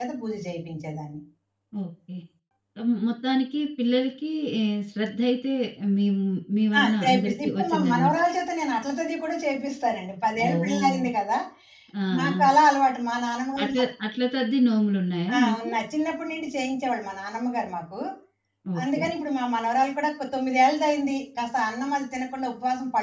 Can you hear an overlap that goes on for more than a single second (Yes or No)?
Yes